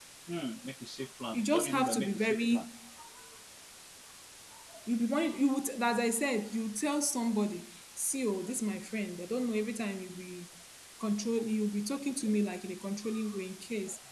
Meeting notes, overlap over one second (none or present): present